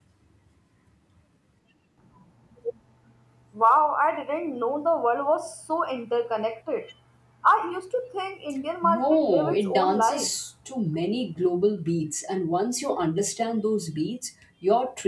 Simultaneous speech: Yes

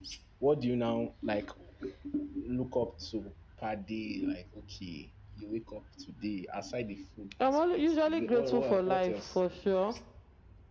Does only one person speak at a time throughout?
No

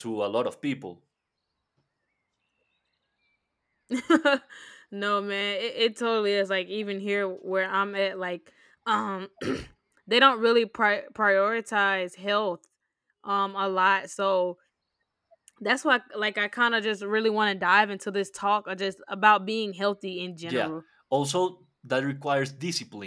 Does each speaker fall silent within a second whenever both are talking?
Yes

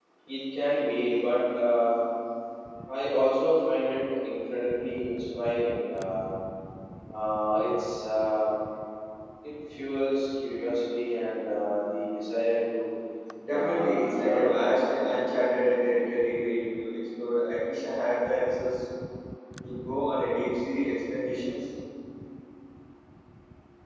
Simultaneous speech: Yes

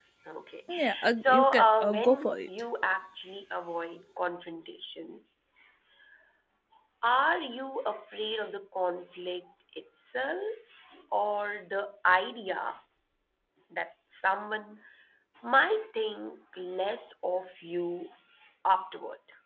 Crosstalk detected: Yes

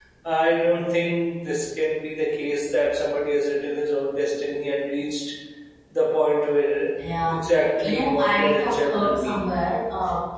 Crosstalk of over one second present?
Yes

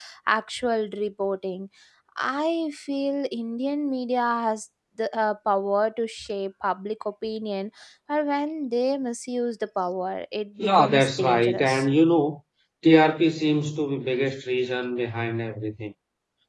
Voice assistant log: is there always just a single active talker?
No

